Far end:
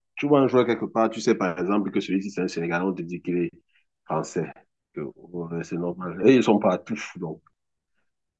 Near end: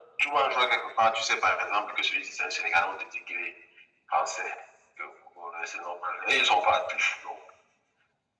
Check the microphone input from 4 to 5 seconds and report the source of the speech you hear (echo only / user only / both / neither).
echo only